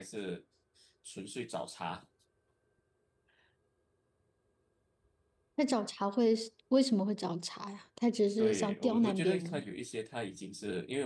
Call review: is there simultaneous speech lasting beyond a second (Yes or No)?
Yes